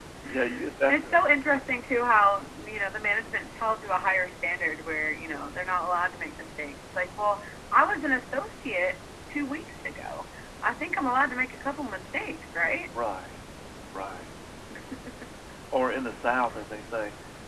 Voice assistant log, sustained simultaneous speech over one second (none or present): none